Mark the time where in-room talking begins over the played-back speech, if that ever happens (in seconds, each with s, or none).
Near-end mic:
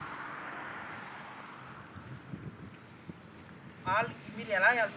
3.9 s